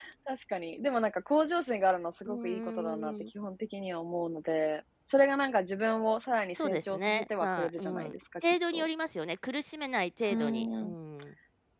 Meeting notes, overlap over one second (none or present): present